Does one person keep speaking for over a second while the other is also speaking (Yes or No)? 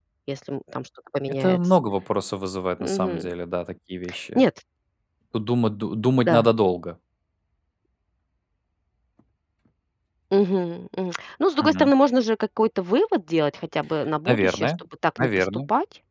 No